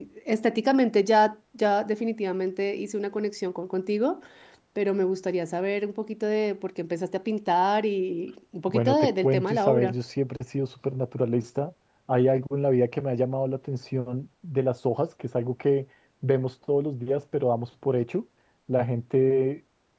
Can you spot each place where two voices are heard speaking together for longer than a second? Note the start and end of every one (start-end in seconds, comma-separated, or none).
8.7-9.9